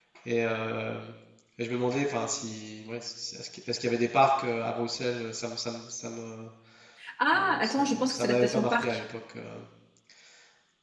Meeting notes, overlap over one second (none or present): present